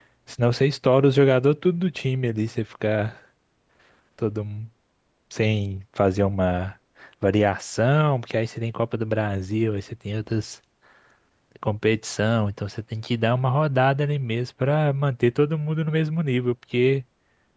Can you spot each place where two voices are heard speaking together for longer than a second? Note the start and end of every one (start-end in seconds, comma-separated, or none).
none